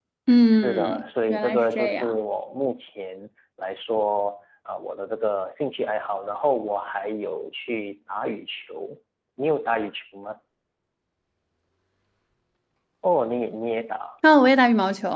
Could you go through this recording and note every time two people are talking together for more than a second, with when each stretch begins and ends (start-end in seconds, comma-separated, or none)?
0.5-2.2